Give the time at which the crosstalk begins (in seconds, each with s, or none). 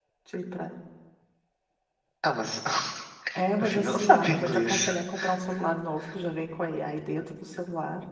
3.6 s